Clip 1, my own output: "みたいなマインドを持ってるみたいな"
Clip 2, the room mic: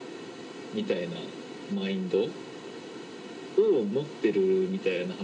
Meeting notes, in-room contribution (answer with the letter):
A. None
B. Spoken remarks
A